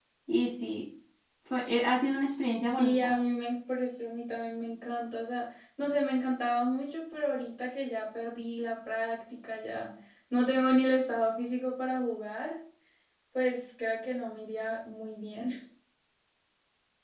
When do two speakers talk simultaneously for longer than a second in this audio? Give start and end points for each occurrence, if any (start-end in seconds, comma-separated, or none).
none